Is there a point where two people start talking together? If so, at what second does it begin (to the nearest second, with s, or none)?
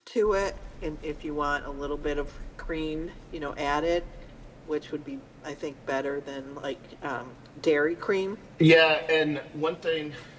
none